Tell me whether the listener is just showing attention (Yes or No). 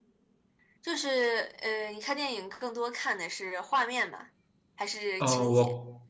No